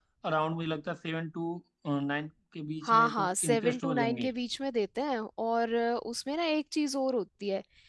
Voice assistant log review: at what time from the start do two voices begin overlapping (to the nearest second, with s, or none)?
3 s